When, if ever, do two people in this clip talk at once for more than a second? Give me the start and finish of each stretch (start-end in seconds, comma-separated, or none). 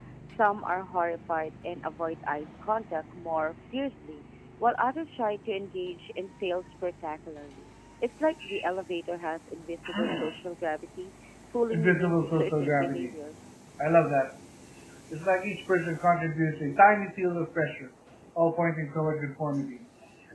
11.7-13.1